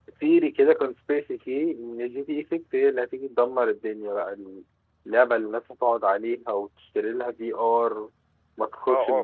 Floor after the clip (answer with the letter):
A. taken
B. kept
A